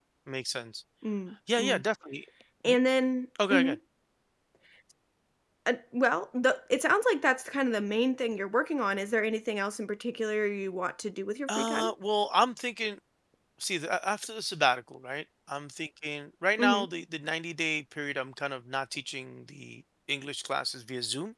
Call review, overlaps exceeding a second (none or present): none